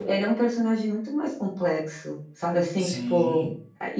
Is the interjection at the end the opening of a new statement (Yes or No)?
No